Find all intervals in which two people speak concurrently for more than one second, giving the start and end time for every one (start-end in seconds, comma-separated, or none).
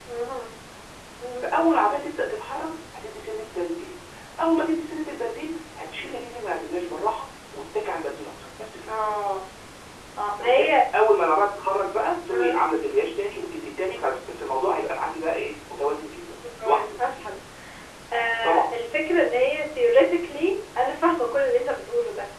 none